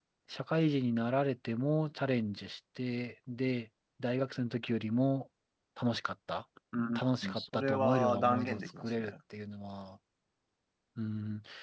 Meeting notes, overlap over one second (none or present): present